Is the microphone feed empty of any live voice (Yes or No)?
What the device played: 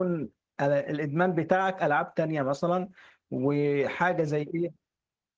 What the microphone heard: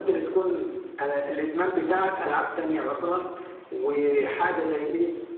Yes